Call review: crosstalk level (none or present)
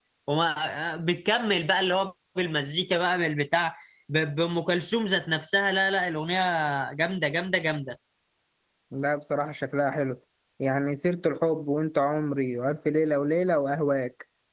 none